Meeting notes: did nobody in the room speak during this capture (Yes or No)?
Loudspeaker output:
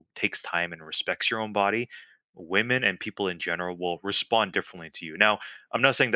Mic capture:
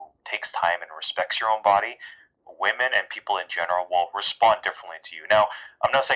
Yes